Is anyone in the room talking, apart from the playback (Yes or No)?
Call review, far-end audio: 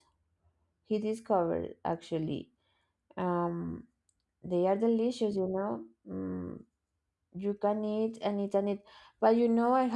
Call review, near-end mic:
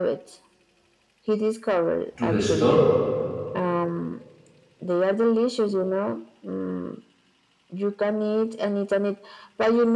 Yes